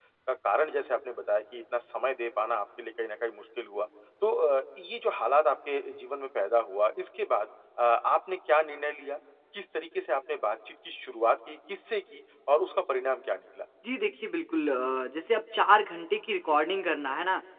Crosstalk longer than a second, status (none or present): none